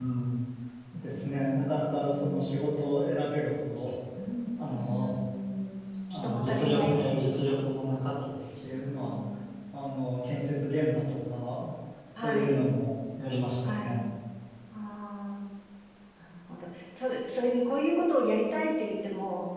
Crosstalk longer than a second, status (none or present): present